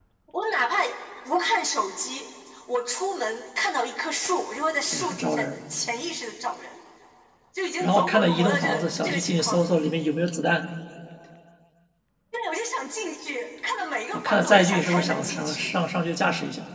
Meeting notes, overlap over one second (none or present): present